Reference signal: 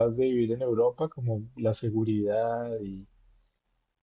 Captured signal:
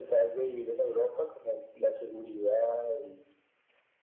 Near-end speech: none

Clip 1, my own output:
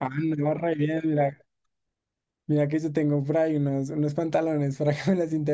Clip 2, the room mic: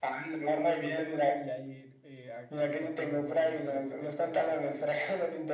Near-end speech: present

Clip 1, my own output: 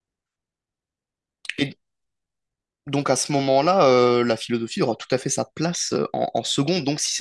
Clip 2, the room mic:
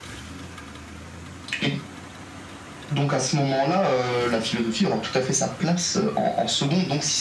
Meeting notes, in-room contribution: none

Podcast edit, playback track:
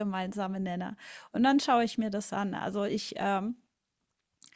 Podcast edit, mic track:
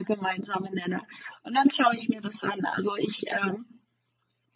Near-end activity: none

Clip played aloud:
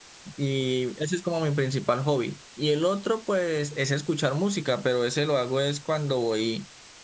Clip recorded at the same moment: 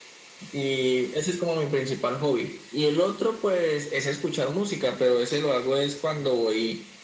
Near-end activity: none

